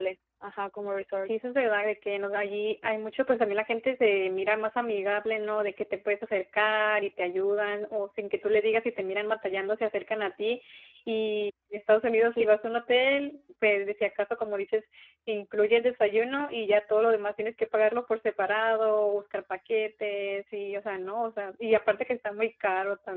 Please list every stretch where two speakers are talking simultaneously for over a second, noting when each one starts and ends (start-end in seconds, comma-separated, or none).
none